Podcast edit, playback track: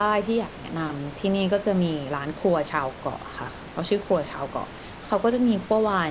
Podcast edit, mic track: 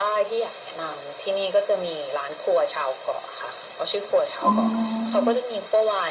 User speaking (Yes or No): Yes